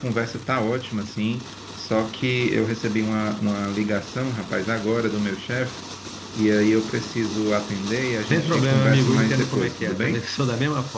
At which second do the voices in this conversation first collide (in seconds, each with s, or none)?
8.3 s